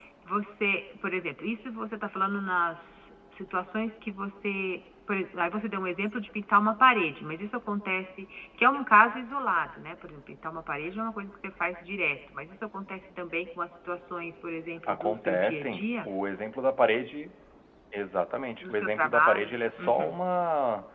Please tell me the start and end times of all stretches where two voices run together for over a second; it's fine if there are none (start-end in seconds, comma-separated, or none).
14.9-16.1, 18.6-20.2